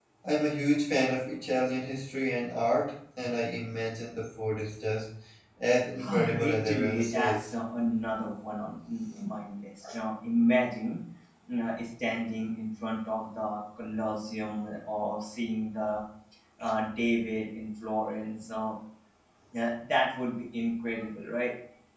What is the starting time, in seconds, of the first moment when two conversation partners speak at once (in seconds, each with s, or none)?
6.1 s